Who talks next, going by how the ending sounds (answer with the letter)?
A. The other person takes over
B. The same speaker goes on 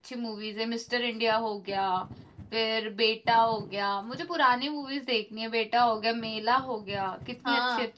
A